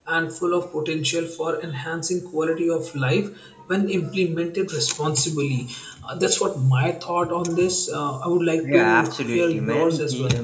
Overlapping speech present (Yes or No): Yes